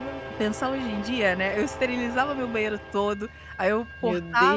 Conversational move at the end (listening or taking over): listening